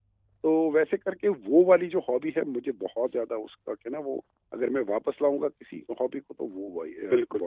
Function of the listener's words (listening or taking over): taking over